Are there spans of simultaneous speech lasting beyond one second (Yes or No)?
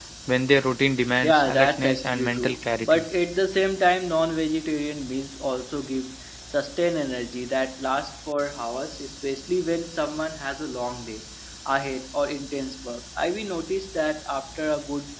Yes